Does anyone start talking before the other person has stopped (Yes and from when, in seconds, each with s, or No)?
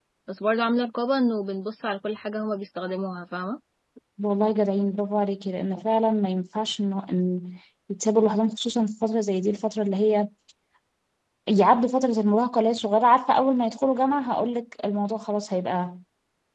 No